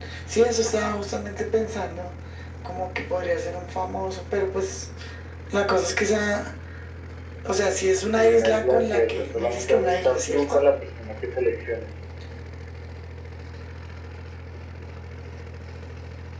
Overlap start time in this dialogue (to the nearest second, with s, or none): 8 s